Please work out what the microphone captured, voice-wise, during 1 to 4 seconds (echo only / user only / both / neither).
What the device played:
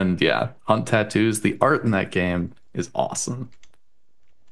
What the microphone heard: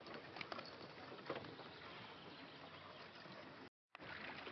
neither